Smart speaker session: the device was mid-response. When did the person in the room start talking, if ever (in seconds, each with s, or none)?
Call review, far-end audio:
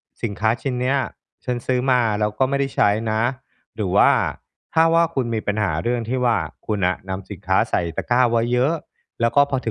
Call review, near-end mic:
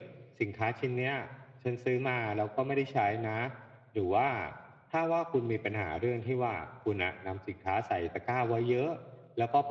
none